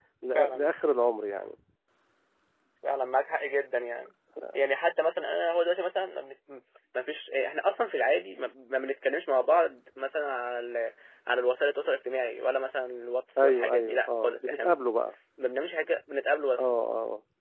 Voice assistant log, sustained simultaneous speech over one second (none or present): present